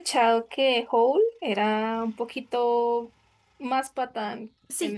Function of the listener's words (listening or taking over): taking over